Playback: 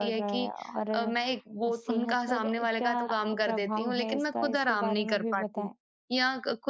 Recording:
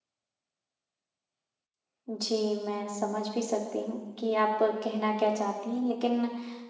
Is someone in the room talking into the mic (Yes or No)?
Yes